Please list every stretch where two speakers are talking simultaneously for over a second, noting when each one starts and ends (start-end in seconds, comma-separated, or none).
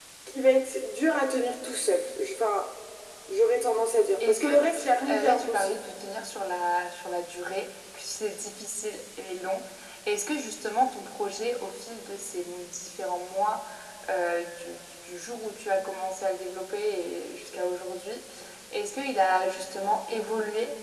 4.2-5.7